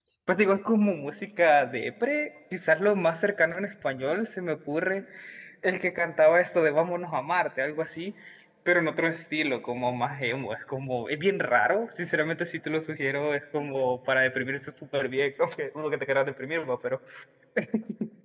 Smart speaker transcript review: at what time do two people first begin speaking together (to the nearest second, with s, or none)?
none